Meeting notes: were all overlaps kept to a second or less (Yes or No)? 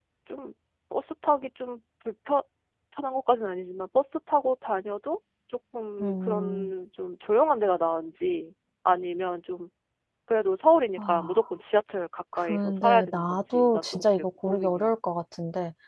No